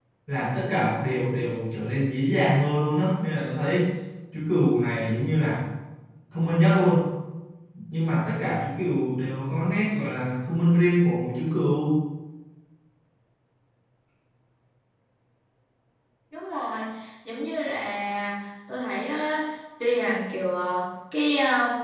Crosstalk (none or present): none